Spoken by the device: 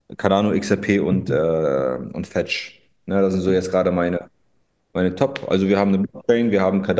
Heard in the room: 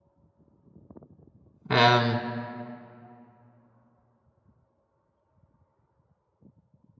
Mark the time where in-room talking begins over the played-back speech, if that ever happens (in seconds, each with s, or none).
1.7 s